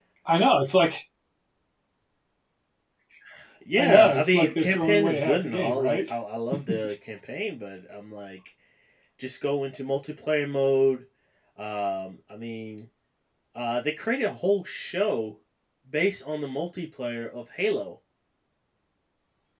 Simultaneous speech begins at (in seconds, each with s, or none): 3.8 s